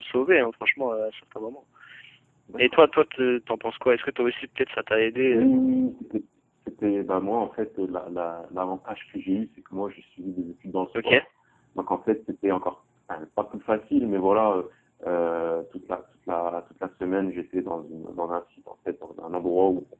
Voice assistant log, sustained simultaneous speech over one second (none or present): none